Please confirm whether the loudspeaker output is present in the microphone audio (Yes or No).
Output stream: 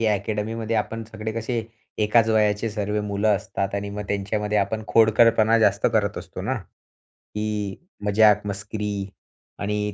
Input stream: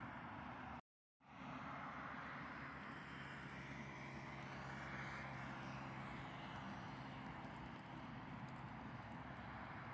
No